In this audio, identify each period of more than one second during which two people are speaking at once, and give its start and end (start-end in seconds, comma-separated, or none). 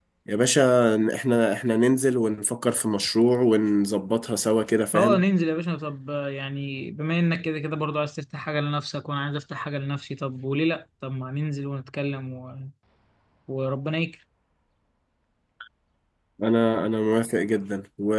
none